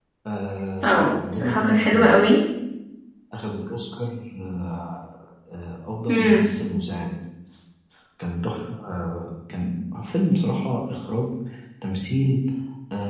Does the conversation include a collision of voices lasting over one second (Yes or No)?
Yes